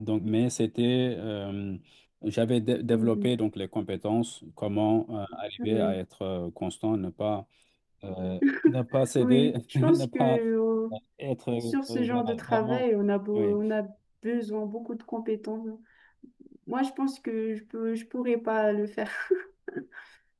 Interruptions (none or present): present